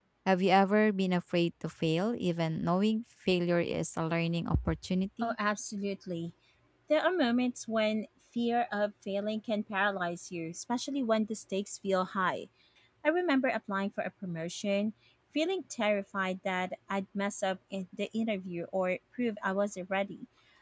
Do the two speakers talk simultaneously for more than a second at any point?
No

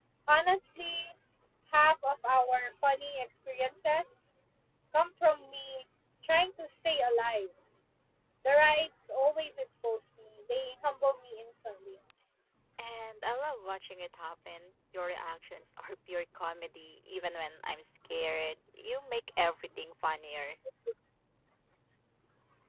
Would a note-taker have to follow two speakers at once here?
No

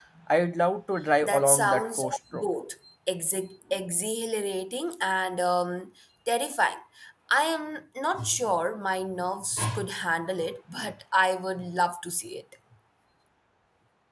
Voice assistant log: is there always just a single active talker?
No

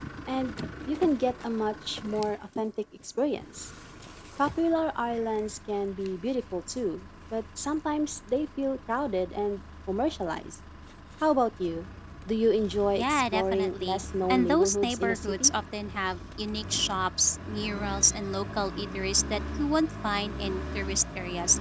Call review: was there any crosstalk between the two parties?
Yes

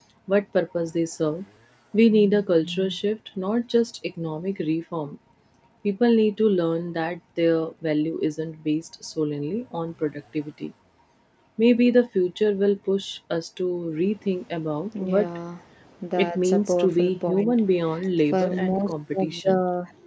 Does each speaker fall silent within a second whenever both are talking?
No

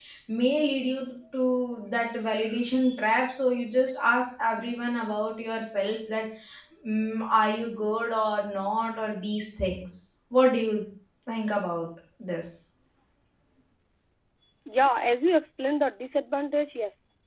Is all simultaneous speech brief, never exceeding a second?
Yes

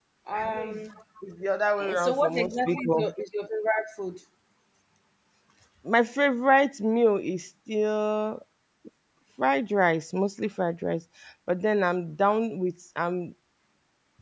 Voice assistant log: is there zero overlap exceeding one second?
No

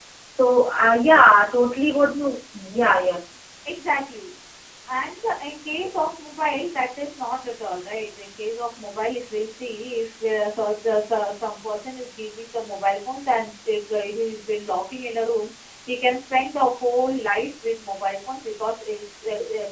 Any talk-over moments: No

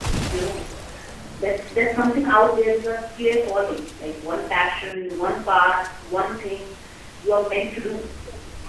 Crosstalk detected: No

